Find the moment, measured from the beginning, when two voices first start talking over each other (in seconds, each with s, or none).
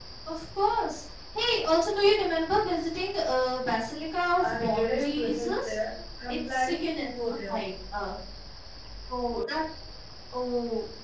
4.4 s